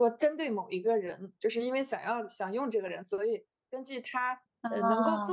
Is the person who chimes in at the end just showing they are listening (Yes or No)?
Yes